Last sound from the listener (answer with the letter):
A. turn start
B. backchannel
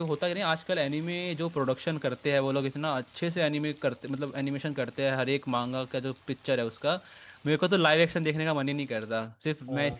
A